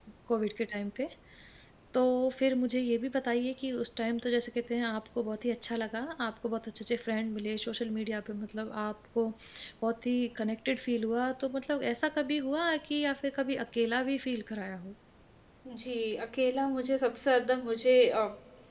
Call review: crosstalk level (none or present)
none